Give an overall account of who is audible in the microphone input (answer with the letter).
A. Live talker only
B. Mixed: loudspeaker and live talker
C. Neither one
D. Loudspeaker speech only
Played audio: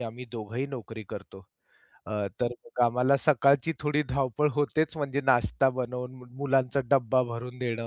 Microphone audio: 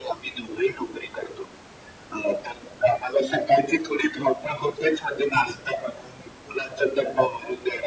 D